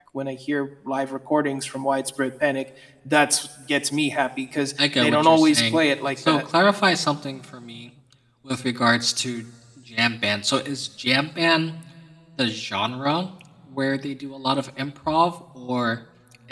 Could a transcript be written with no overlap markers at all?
No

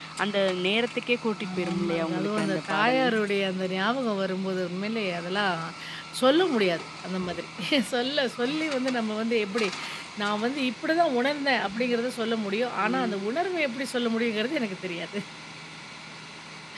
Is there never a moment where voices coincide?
No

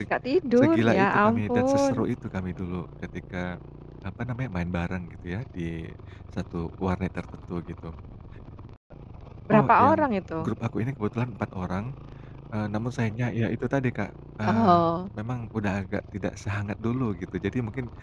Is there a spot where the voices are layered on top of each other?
Yes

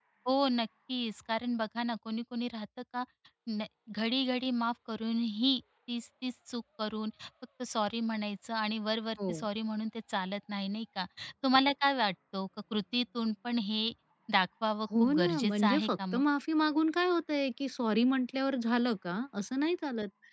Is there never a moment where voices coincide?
No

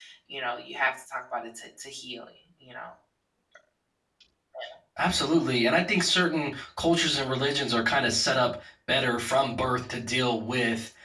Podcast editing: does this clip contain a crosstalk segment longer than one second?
No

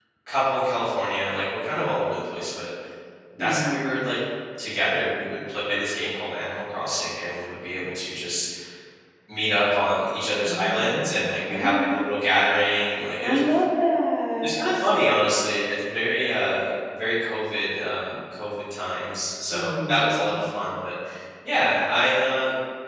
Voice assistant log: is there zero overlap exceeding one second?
No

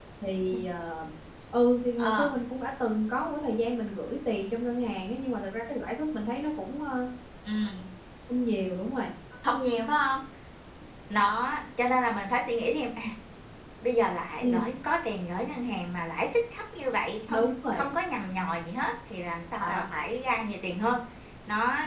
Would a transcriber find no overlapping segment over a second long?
Yes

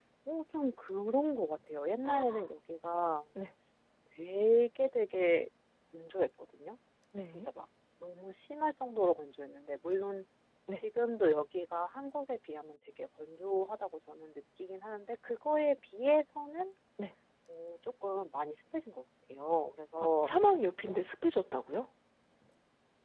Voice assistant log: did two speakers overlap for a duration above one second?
No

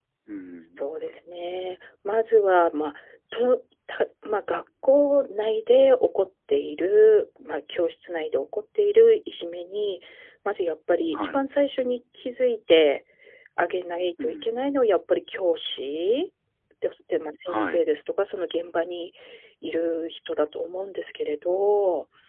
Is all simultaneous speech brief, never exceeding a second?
Yes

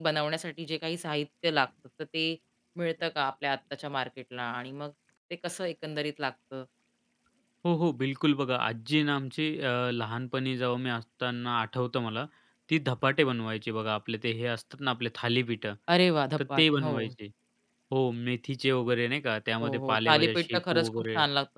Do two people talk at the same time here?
Yes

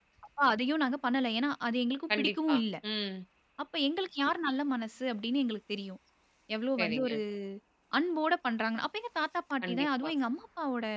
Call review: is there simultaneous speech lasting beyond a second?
No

